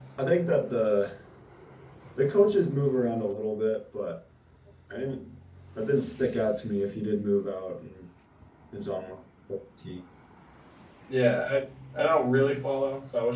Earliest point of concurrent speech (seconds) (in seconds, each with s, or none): none